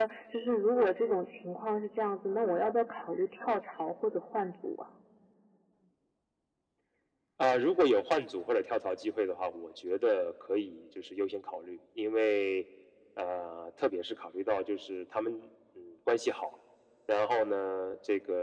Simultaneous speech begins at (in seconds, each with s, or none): none